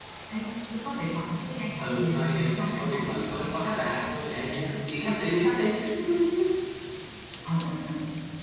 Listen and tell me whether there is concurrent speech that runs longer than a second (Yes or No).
Yes